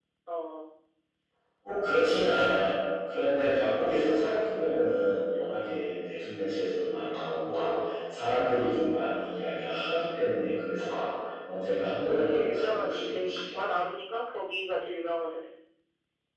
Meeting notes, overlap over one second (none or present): present